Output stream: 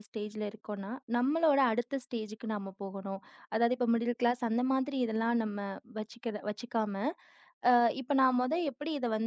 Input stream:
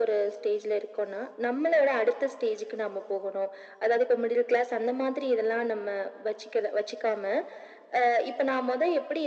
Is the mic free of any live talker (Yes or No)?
Yes